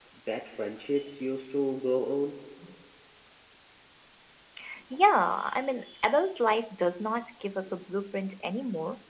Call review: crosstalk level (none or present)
none